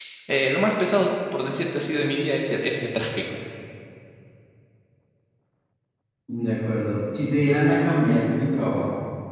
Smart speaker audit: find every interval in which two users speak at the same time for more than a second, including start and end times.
none

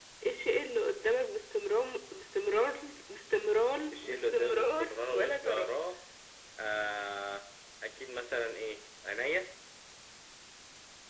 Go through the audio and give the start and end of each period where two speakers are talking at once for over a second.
3.9-5.7

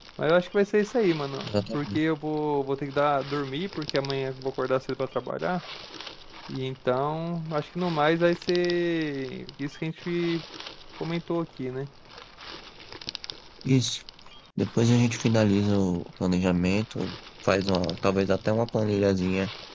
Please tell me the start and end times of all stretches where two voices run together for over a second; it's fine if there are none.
none

